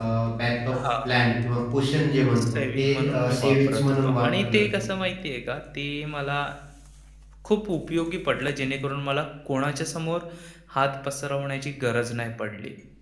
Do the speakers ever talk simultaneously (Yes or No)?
Yes